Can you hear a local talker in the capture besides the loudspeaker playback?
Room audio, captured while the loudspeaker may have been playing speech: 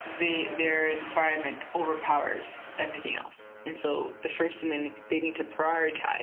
No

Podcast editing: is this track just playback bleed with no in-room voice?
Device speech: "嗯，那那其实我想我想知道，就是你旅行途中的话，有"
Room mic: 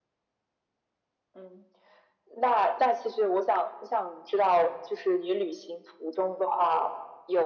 Yes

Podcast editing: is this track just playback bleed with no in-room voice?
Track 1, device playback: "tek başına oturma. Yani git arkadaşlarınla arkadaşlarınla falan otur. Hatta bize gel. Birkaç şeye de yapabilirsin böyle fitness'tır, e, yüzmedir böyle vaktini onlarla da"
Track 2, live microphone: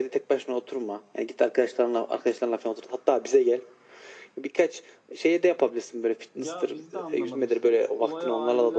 No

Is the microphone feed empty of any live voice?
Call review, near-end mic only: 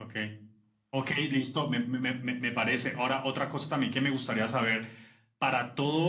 Yes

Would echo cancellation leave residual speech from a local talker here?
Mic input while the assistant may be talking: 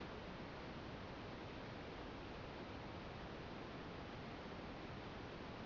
No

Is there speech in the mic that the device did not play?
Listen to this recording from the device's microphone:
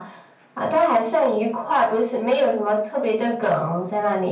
No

